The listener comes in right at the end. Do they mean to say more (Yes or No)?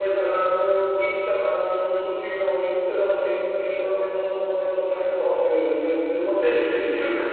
Yes